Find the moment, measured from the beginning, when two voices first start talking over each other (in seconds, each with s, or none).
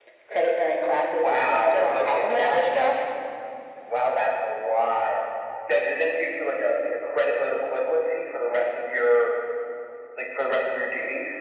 1.2 s